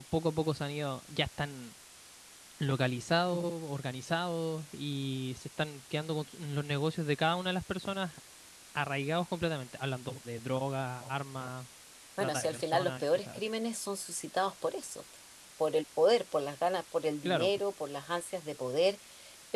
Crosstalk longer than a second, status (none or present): present